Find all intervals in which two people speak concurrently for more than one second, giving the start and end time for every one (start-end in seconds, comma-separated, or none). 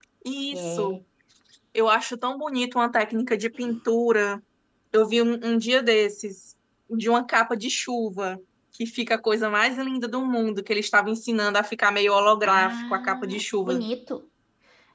12.4-13.8